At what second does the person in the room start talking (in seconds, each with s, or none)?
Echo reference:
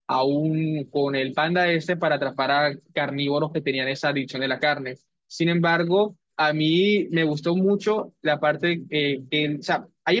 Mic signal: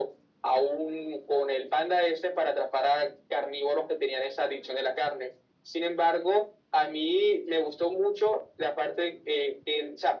none